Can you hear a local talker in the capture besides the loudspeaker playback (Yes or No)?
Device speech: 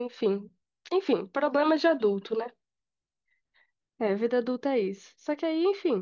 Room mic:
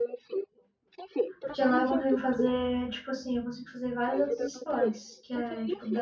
Yes